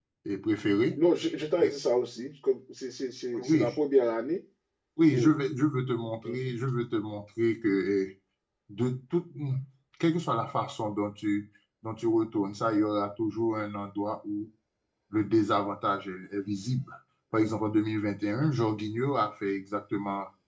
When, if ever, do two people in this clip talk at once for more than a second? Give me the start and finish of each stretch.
none

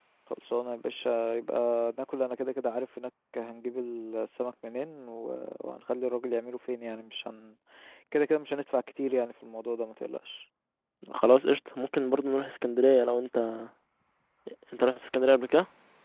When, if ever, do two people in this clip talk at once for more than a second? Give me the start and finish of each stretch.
none

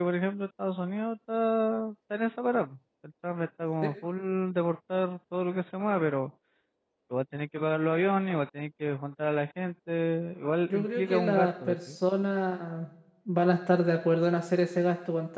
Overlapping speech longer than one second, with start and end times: 10.7-12.0

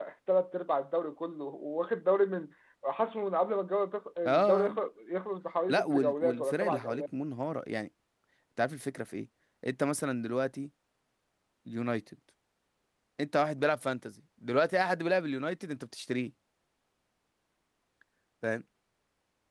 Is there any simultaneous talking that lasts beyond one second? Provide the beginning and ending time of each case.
5.7-7.0

